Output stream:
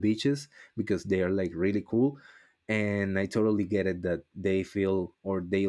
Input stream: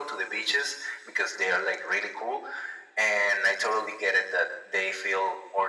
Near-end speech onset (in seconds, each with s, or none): none